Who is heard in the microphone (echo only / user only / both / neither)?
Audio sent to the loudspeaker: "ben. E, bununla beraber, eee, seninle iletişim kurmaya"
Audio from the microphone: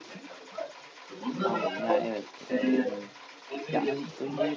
both